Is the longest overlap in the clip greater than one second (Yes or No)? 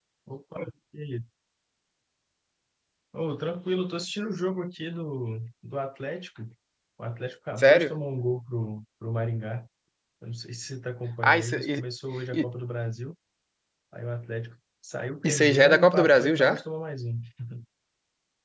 Yes